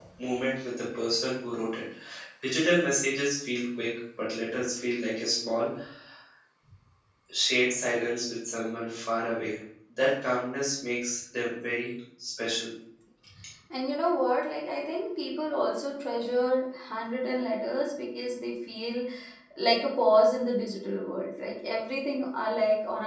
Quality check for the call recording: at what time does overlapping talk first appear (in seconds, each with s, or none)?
none